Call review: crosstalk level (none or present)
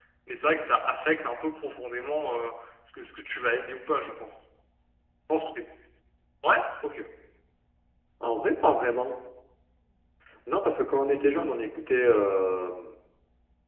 none